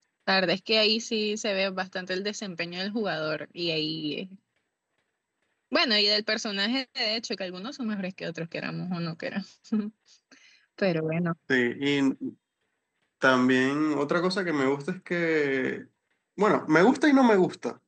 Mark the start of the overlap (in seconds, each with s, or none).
none